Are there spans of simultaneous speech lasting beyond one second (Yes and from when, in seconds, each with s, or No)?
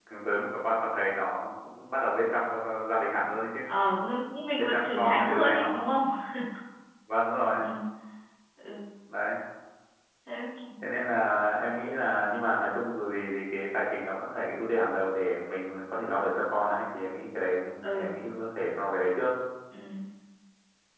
Yes, from 4.5 s